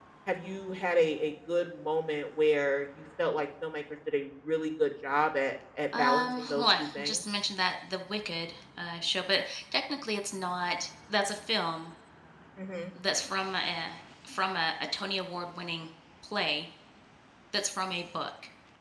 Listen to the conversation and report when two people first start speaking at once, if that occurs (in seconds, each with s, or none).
5.9 s